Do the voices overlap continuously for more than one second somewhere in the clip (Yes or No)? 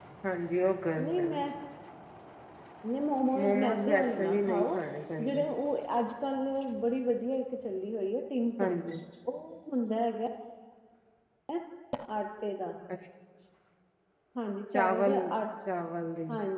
Yes